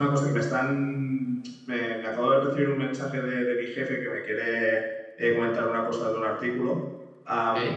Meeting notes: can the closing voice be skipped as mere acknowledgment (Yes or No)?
Yes